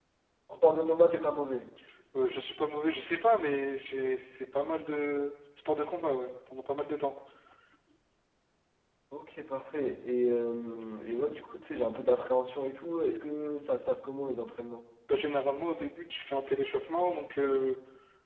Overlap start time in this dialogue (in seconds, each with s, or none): none